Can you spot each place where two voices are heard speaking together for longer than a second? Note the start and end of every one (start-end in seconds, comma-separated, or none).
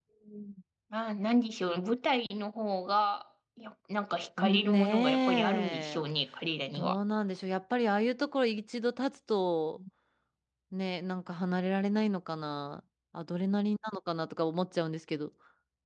4.4-6.0